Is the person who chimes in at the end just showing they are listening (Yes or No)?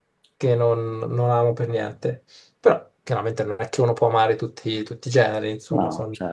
Yes